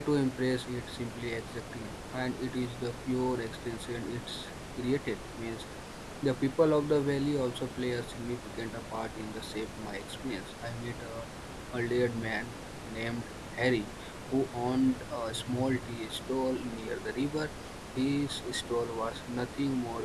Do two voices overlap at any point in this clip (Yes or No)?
No